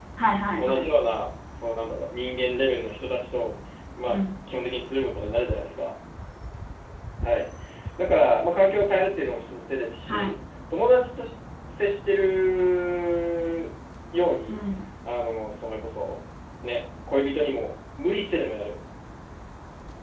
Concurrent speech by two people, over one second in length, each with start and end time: none

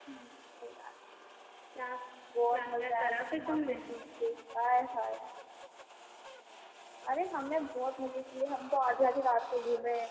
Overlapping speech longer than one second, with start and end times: 2.5-3.8

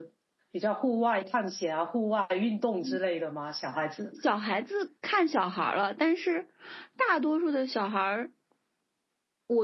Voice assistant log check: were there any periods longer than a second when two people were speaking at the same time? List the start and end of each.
none

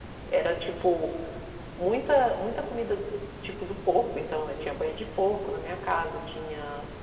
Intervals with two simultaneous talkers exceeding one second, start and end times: none

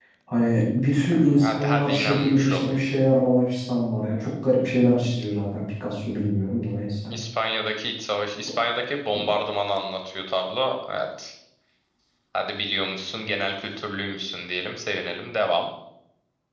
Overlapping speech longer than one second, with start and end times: 0.9-2.8

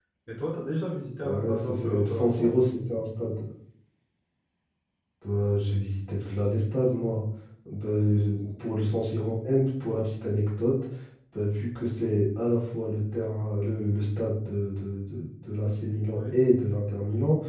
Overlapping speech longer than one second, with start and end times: 1.2-2.5

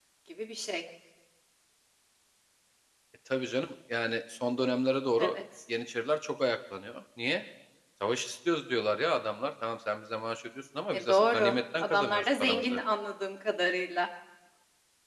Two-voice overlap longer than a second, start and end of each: 10.9-12.8

